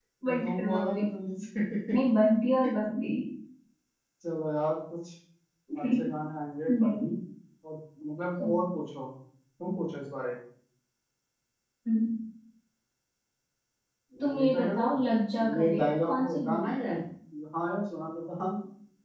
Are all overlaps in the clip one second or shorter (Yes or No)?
No